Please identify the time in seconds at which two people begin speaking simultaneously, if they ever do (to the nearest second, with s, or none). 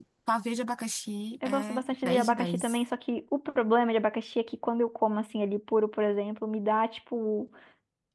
1 s